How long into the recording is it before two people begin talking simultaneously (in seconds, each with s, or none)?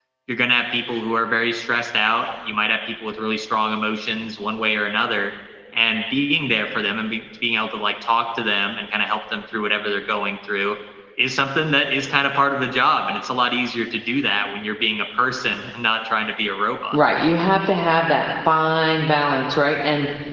none